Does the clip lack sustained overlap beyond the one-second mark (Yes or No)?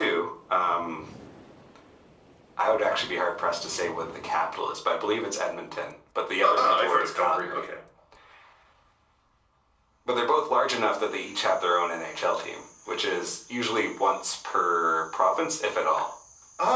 No